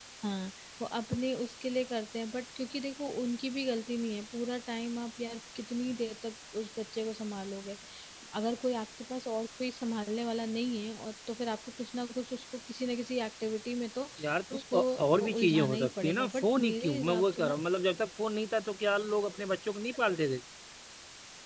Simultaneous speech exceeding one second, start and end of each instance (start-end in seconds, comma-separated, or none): 14.6-17.6